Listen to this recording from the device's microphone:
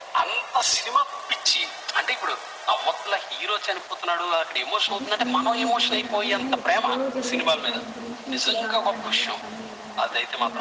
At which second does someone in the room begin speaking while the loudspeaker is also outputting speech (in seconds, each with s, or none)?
4.9 s